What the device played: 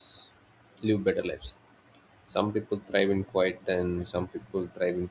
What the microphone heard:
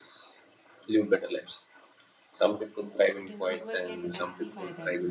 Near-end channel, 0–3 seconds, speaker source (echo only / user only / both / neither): echo only